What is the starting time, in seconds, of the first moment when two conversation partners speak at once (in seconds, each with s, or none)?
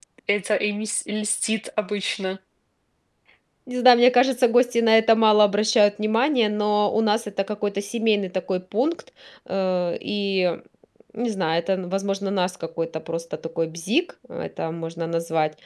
none